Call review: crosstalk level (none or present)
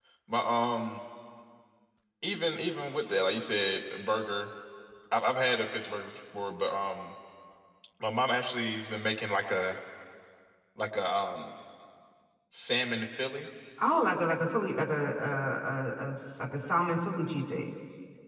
none